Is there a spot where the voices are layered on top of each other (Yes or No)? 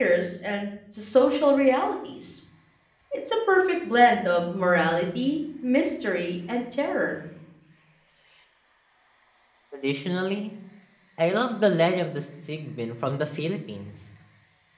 No